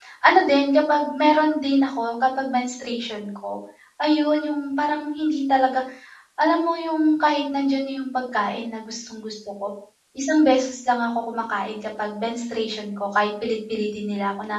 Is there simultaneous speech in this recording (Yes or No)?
No